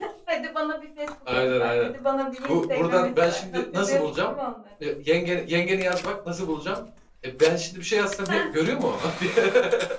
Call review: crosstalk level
present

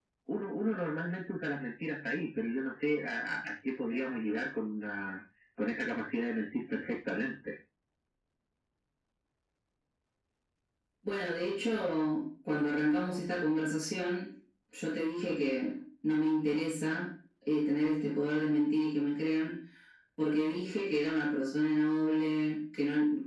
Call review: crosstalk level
none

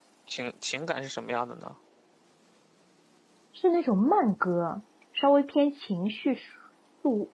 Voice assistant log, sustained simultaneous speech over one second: none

